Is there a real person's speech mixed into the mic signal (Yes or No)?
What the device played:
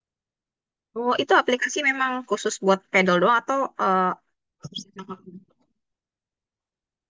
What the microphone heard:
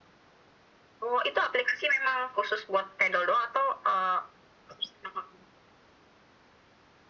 No